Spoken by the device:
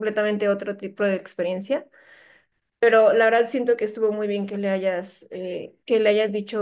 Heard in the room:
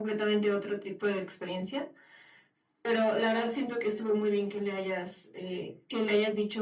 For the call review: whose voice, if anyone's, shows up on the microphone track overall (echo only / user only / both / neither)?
both